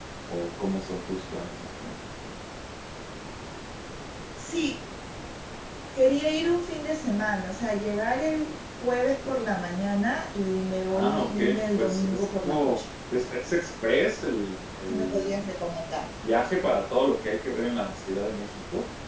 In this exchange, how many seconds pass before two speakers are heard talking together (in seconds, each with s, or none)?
10.9 s